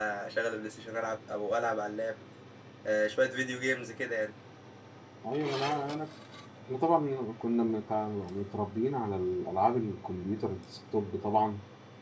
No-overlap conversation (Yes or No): Yes